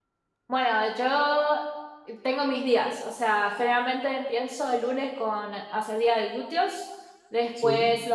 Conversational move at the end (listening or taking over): listening